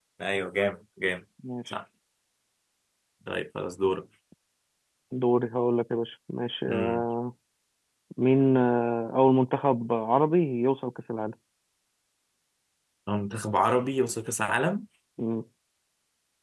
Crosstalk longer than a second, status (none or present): none